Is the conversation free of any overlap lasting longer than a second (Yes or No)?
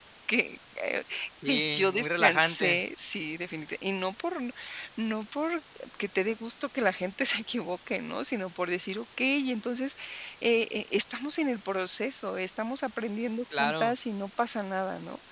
No